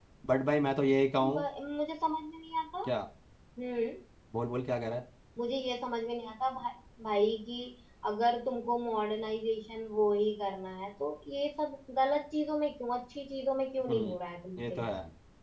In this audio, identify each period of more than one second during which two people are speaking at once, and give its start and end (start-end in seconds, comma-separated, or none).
none